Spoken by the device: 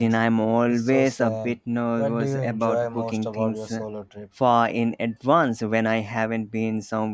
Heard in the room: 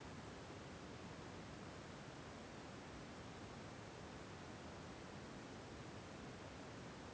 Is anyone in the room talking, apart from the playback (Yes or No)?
No